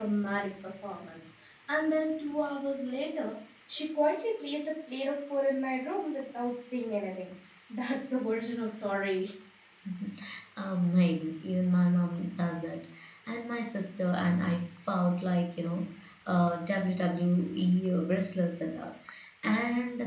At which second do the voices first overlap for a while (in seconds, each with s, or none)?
none